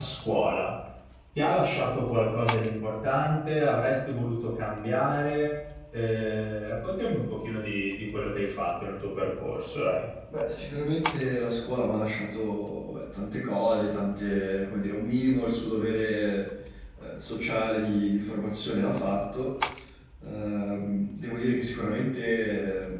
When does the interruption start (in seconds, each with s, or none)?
none